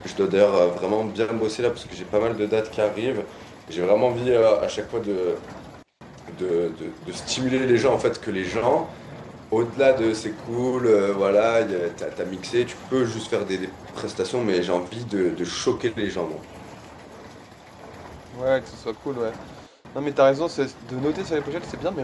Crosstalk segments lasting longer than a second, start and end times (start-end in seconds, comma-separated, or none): none